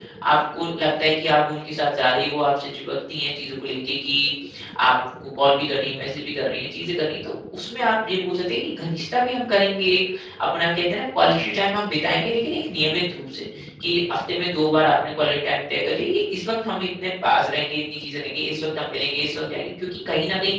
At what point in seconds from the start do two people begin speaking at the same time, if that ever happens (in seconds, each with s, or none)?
none